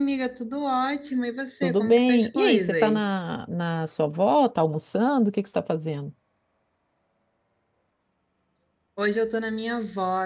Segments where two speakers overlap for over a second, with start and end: 1.6-3.1

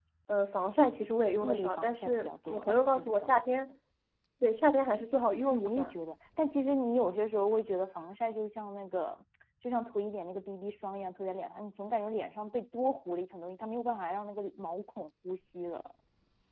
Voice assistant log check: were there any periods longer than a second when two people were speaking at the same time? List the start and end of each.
1.4-3.4

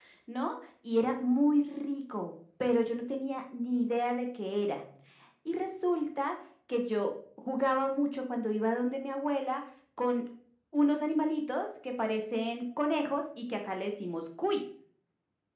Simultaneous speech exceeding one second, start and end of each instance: none

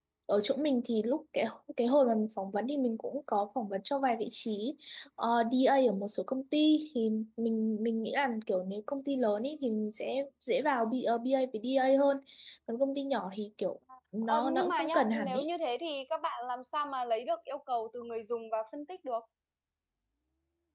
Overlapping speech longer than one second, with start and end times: 14.2-15.4

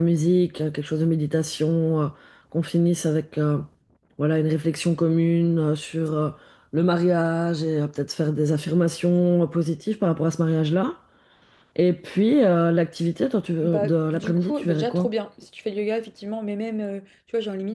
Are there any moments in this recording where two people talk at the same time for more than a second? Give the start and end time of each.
13.6-15.1

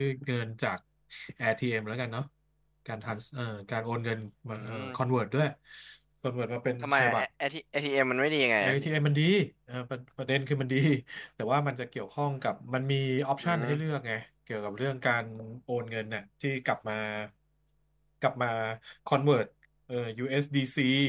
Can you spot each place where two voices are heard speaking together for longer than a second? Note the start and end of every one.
none

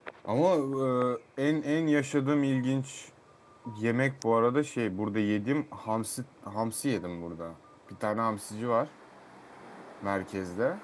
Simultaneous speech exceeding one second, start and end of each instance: none

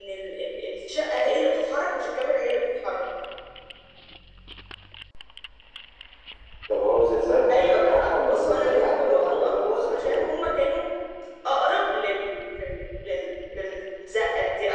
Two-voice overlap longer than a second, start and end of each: 7.5-10.3

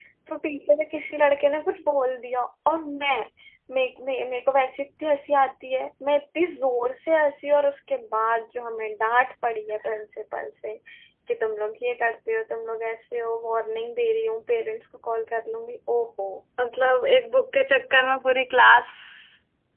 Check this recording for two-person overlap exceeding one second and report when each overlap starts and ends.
none

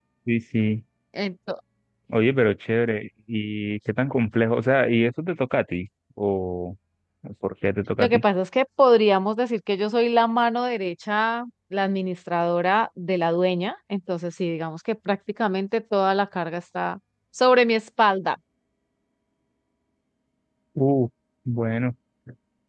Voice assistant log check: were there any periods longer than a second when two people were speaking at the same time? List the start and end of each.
none

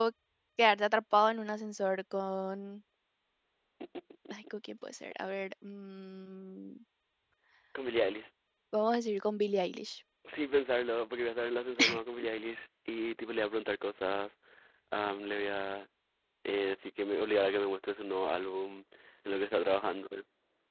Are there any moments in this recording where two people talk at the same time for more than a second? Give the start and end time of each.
none

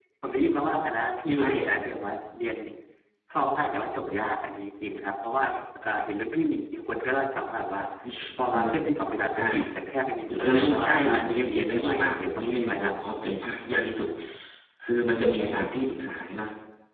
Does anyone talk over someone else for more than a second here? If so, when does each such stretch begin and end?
10.4-12.9

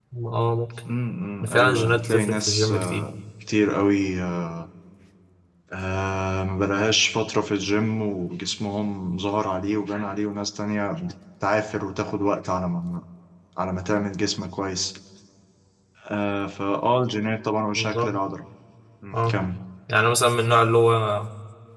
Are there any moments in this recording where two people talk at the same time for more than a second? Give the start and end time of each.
1.5-3.1

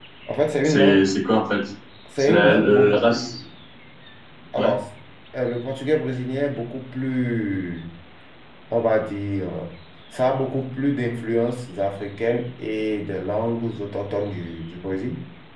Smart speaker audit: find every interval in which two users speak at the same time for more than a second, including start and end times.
2.2-3.4

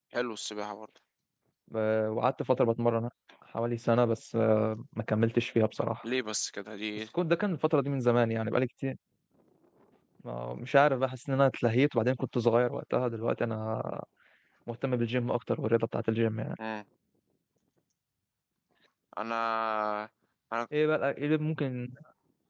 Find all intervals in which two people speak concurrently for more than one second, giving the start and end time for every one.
none

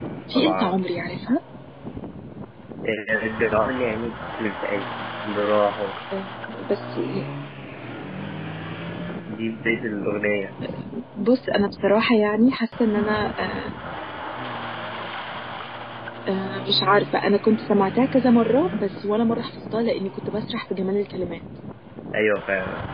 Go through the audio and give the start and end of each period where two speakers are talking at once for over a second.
none

